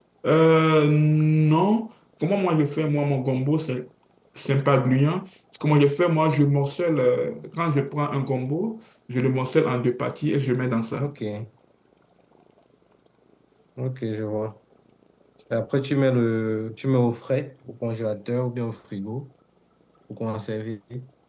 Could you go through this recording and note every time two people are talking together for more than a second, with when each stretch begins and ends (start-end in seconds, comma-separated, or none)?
none